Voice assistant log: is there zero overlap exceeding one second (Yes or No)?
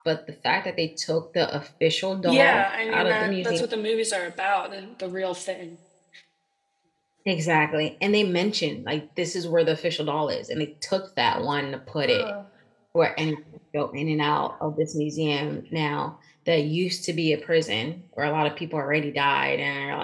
No